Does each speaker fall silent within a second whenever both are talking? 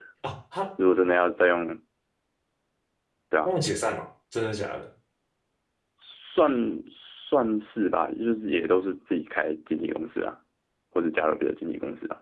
Yes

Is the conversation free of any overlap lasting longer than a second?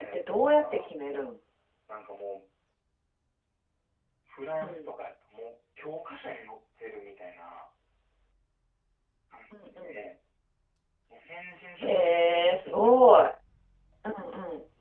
No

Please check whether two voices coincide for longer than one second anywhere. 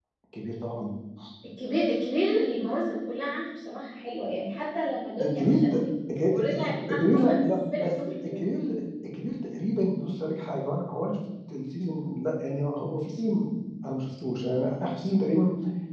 Yes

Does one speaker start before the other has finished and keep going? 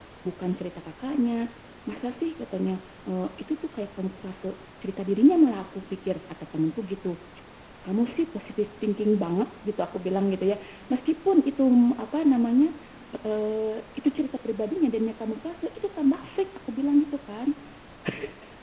No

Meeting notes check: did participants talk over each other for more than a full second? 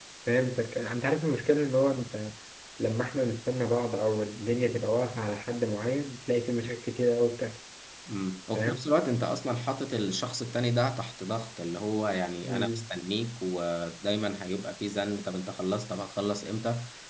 No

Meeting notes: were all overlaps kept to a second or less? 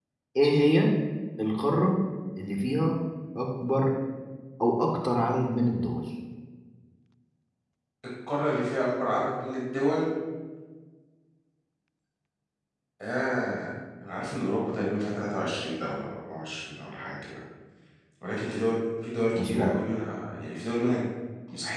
Yes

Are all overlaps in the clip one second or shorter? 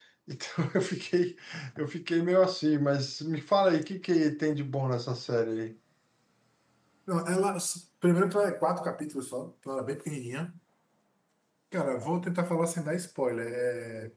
Yes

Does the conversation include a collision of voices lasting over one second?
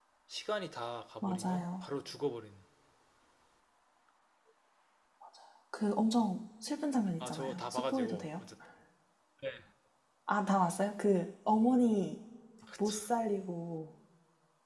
Yes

